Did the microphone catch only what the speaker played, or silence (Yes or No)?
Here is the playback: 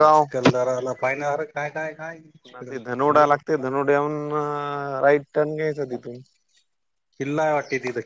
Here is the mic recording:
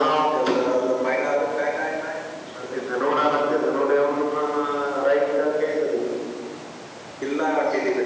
Yes